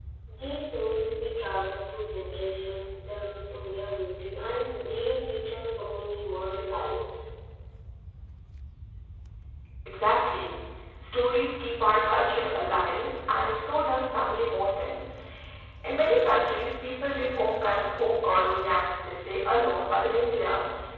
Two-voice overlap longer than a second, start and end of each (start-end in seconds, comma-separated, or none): none